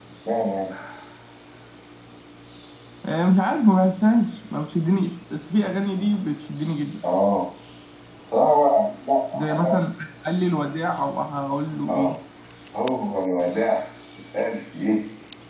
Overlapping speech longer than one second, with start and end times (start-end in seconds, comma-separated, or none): none